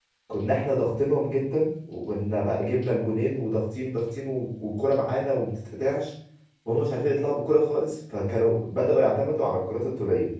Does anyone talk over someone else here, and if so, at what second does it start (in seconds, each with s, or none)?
none